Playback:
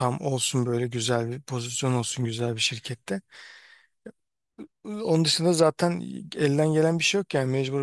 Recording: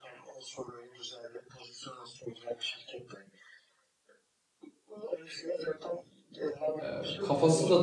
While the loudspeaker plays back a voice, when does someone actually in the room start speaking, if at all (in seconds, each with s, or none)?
6.8 s